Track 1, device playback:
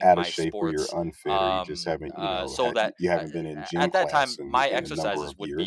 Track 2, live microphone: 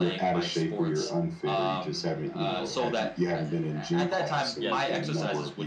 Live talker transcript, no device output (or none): Yes.